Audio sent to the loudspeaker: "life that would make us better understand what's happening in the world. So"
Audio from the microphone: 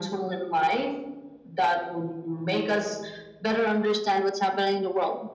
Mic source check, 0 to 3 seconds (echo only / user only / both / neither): echo only